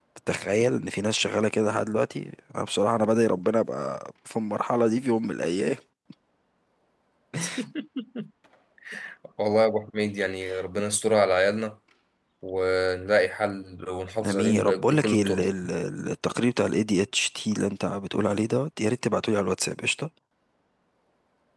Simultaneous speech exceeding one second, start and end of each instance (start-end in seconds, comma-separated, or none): 14.2-15.5